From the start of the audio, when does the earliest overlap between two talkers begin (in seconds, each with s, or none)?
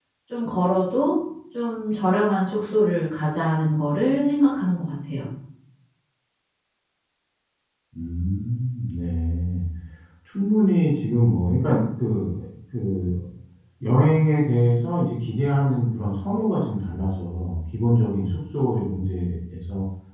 none